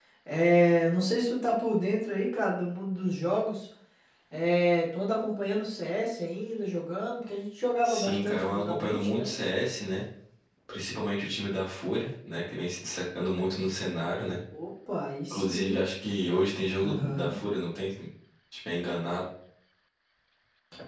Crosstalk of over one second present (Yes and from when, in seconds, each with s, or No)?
Yes, from 7.8 s